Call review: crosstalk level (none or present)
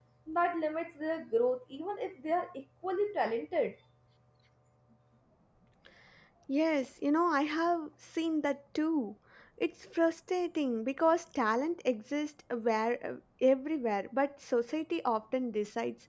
none